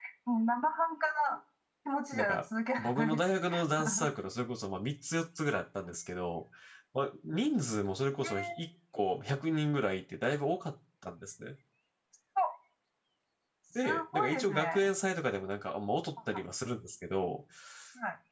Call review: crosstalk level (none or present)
present